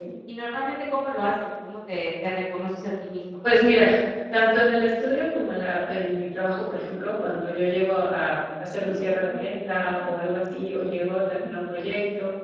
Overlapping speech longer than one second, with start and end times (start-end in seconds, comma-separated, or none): none